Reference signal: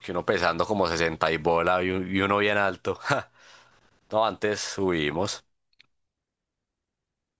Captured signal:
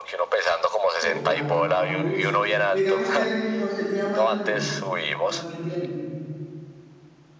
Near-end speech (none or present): present